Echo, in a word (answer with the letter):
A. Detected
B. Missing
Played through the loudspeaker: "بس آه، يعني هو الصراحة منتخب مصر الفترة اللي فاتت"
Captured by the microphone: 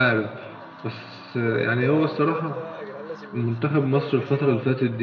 A